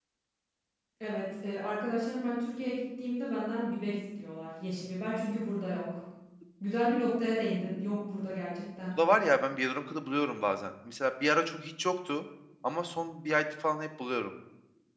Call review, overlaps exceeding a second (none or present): none